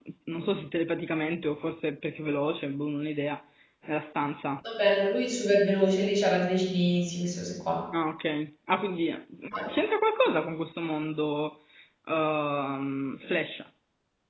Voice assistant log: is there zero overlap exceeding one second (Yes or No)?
Yes